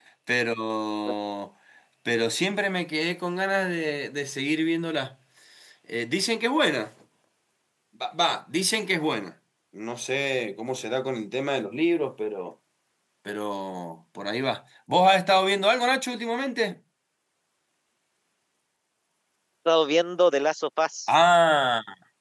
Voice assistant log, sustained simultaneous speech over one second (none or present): none